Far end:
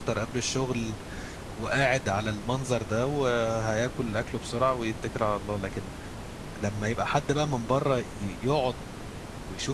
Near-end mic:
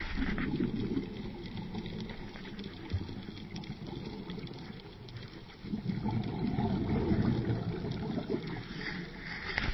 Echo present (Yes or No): No